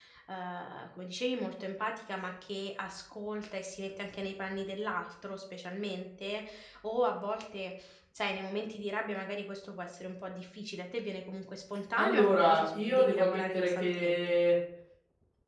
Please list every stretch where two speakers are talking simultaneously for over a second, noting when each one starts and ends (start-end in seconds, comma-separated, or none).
12.0-14.4